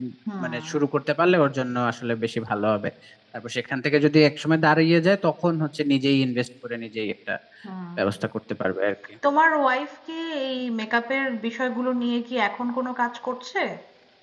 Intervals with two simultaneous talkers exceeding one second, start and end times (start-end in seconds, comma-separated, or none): none